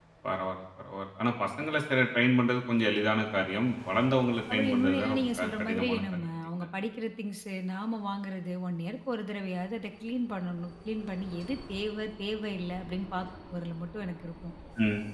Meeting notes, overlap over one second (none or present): present